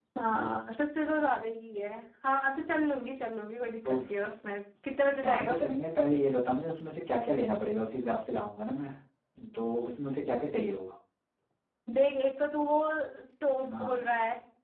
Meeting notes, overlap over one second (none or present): none